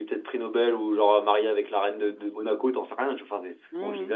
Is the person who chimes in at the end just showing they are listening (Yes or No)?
No